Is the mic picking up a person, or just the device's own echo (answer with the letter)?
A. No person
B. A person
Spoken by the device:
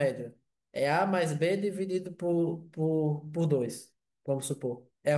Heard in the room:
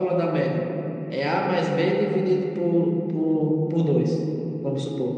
A